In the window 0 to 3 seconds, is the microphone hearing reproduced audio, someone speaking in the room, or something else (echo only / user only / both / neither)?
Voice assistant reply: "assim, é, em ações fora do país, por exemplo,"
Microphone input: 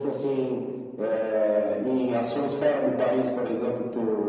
echo only